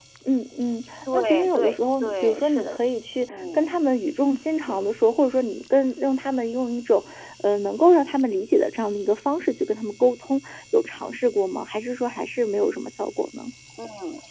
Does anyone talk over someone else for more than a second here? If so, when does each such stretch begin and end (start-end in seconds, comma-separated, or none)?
1.1-2.7